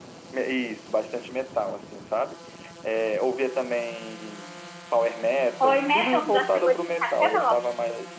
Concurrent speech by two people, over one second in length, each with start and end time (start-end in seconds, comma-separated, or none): 5.6-7.6